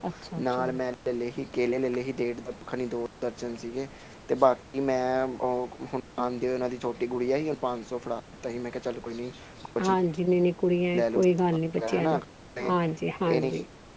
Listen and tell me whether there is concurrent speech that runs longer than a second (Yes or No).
No